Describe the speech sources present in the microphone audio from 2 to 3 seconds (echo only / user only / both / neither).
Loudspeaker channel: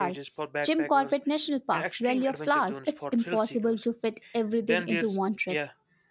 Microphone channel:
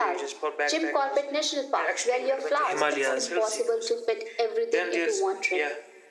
both